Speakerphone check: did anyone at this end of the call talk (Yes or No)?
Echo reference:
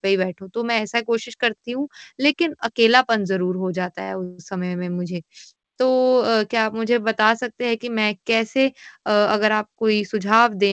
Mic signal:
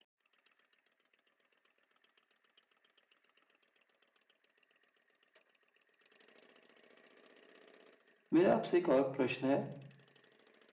Yes